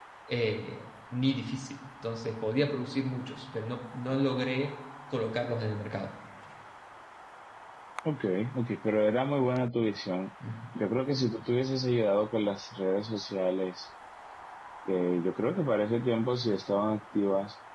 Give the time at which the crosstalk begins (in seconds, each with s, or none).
none